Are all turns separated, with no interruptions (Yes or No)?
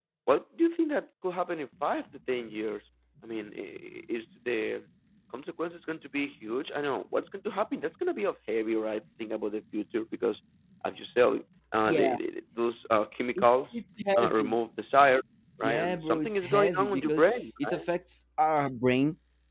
No